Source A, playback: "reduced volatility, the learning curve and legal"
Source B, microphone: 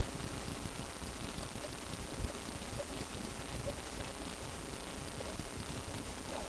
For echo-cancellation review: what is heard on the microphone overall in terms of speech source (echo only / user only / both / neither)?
neither